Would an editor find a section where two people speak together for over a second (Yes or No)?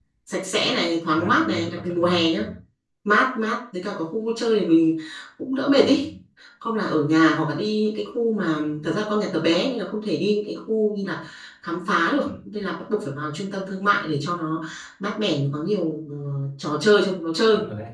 Yes